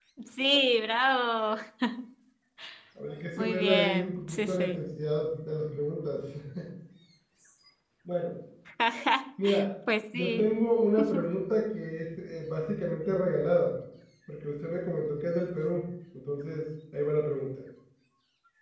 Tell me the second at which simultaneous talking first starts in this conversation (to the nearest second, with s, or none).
3 s